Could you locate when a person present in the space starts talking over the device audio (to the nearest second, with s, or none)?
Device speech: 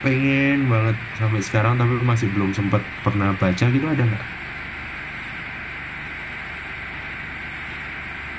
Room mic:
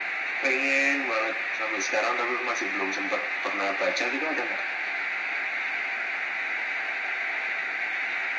none